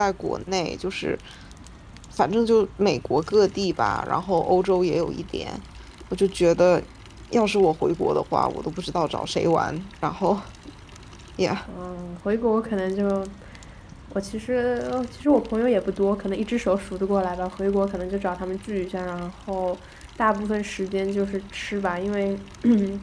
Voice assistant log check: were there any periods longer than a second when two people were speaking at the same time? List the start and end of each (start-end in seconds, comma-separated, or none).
none